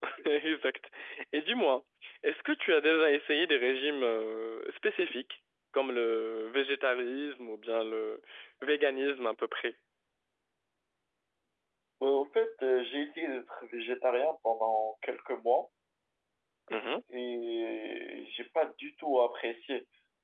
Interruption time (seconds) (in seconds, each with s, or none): none